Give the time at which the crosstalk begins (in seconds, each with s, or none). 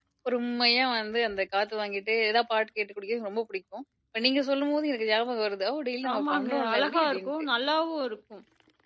6.0 s